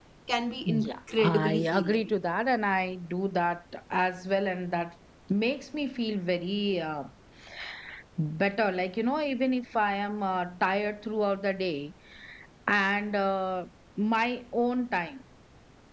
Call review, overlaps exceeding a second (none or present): present